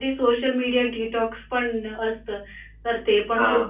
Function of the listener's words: listening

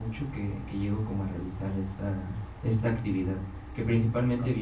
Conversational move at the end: listening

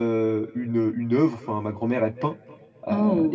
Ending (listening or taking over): listening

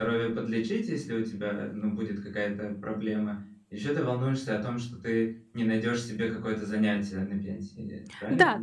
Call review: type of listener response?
taking over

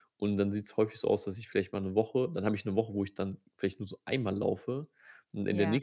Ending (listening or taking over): listening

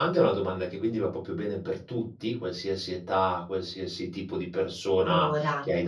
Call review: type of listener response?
listening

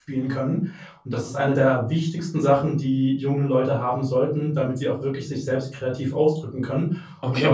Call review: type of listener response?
taking over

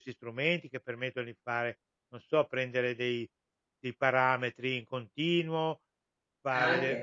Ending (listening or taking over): listening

